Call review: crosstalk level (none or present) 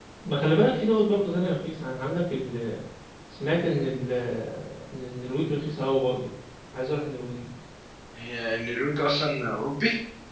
none